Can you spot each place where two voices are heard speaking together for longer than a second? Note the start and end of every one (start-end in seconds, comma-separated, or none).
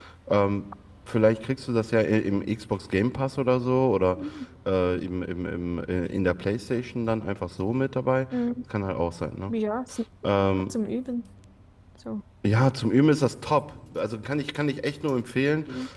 none